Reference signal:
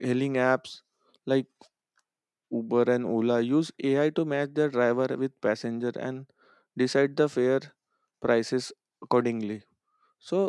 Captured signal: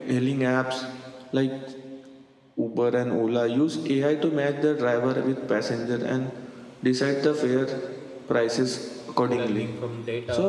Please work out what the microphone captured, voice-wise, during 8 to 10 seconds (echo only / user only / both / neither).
both